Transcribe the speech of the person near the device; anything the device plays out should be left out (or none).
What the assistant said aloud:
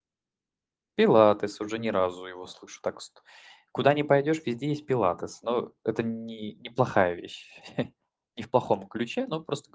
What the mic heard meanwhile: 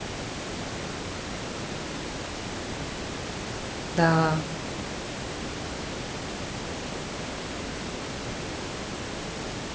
Да.